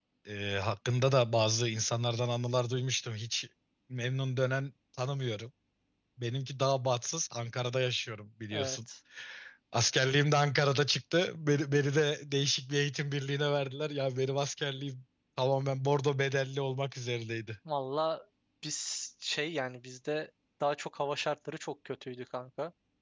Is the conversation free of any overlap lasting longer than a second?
Yes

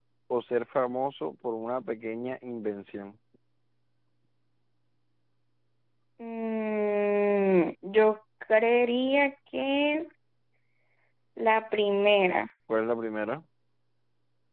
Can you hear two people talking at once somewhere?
No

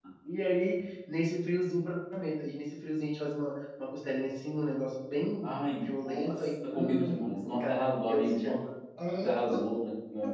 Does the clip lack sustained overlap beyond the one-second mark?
No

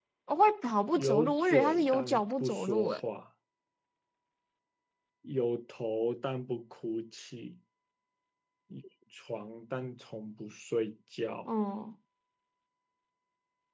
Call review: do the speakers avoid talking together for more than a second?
No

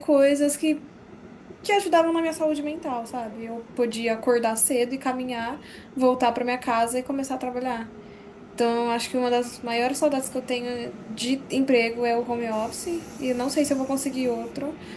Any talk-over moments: No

